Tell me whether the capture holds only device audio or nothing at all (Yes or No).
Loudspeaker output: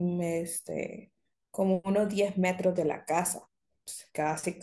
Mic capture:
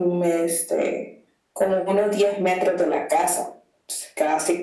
Yes